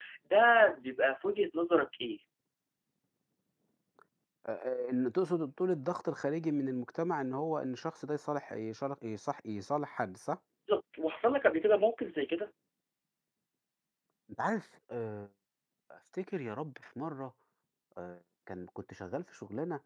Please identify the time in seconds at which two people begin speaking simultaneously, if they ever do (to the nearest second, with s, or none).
none